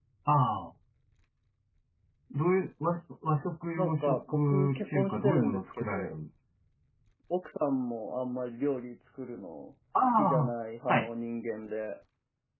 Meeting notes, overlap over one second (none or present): present